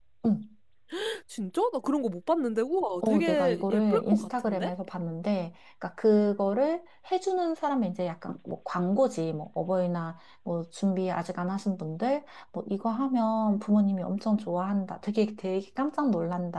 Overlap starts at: 3.0 s

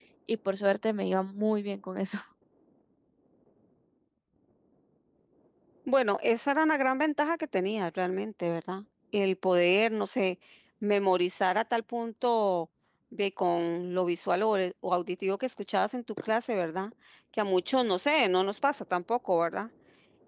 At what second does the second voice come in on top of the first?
none

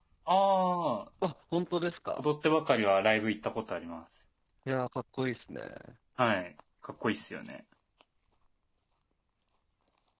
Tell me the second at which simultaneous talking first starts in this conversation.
none

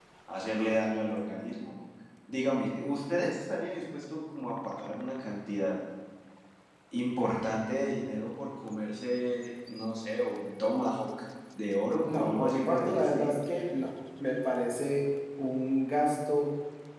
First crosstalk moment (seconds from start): 12.0 s

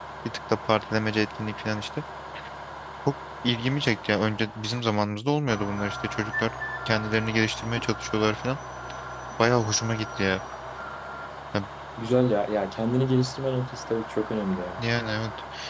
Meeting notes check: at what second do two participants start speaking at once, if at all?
none

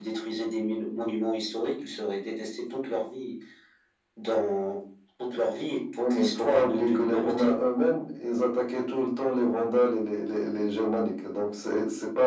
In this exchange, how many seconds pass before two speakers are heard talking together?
5.8 s

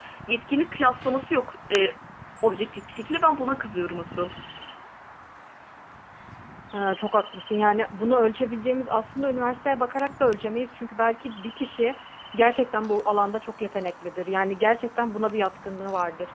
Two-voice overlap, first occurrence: none

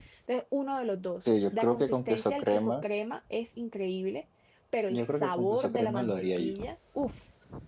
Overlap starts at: 1.5 s

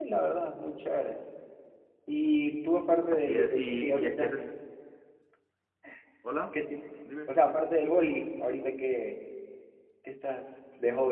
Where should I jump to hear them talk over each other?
3.1 s

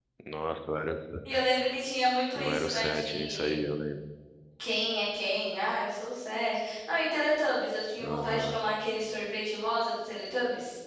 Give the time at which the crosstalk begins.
2.4 s

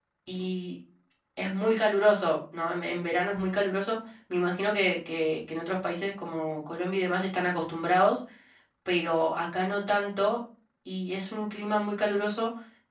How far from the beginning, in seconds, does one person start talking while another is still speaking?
none

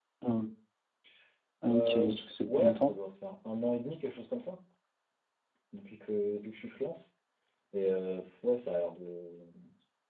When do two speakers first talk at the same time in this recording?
1.7 s

